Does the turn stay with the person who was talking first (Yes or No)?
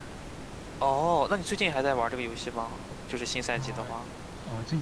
No